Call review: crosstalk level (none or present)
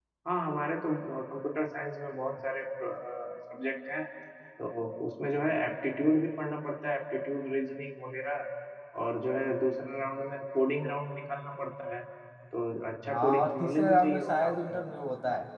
present